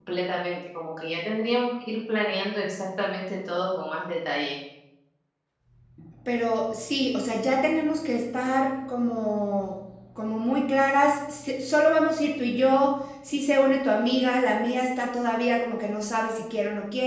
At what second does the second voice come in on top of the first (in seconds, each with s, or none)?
none